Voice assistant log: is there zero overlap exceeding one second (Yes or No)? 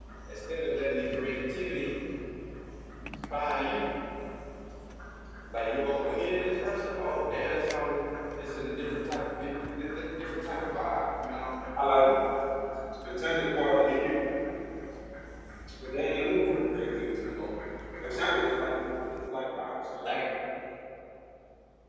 Yes